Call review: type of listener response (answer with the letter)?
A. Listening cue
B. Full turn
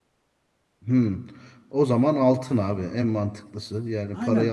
B